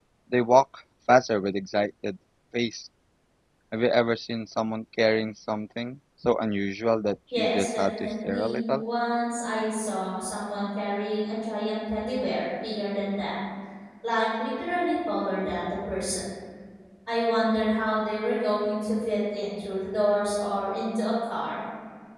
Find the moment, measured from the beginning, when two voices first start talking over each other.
7.3 s

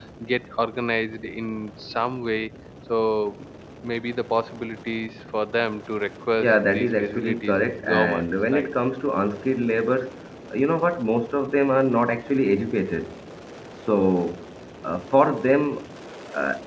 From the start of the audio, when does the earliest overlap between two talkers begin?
6.4 s

